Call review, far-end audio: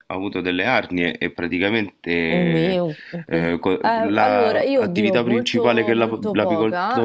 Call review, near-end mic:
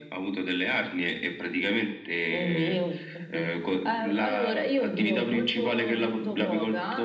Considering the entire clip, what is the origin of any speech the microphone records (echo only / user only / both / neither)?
echo only